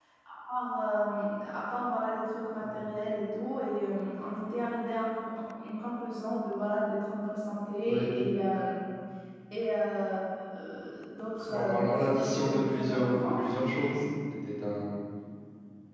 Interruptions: present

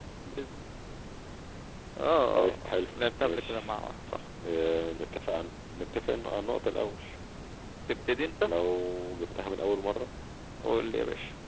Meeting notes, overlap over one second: present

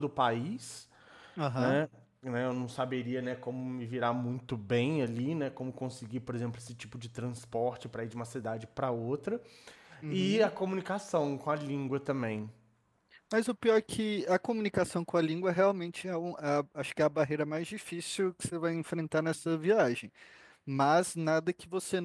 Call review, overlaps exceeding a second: none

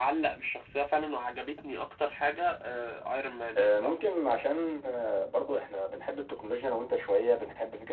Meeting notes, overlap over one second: none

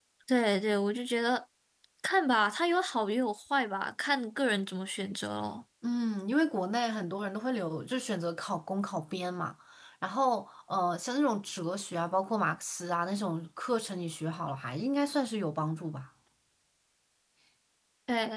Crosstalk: none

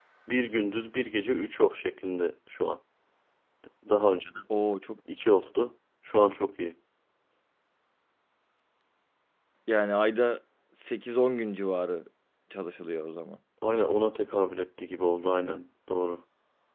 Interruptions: none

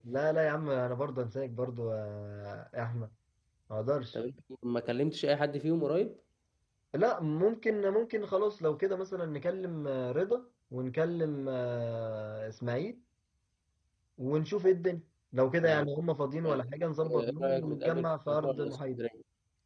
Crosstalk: present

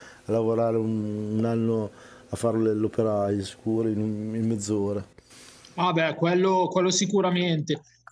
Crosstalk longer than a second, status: none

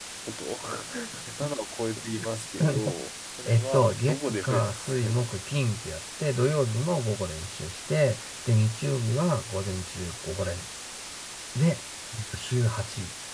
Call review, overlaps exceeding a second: present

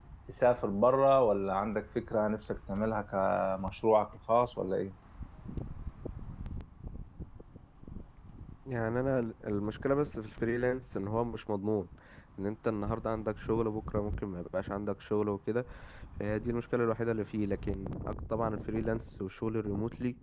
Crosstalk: none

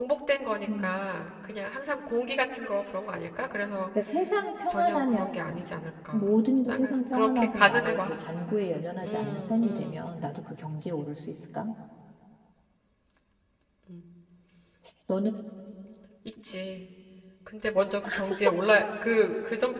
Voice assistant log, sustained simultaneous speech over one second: present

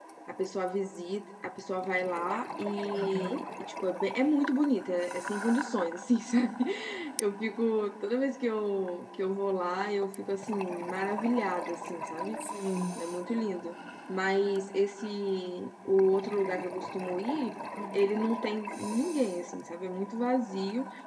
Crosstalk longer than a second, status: none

